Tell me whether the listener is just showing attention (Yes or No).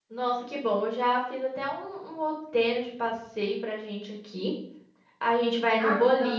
Yes